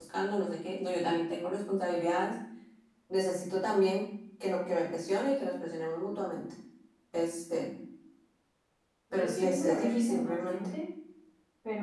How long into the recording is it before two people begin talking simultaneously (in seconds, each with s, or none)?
9.1 s